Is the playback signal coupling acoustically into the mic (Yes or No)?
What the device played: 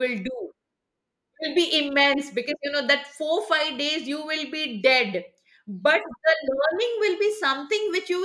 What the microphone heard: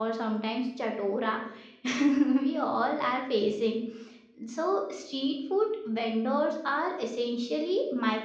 No